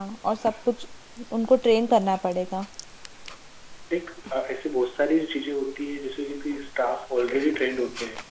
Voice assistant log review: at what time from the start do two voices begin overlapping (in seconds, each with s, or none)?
none